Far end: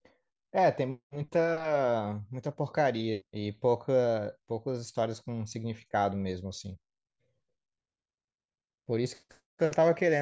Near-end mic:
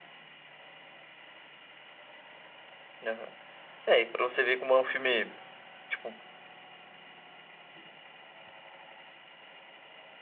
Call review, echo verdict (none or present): none